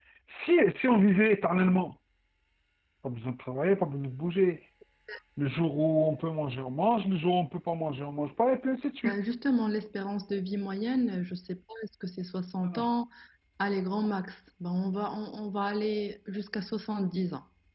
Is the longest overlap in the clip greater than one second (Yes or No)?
No